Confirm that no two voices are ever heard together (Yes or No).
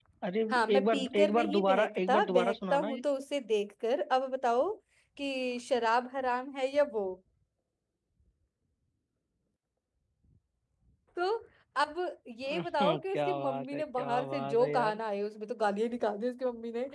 No